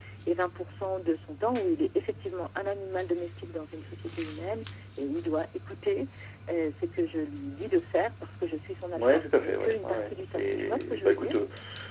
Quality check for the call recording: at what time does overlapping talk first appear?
8.9 s

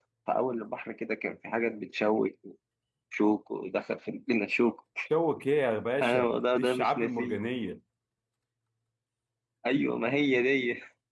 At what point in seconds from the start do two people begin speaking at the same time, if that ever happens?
6.0 s

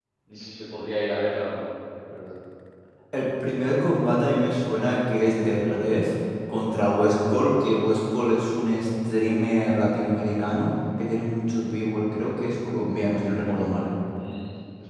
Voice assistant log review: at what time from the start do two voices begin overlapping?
none

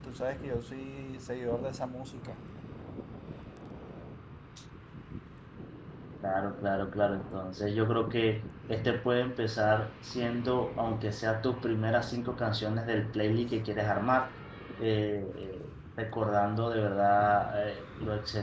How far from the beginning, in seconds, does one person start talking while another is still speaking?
none

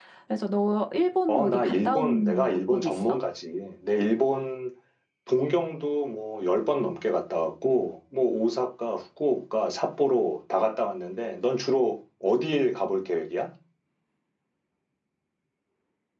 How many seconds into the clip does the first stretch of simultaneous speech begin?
1.3 s

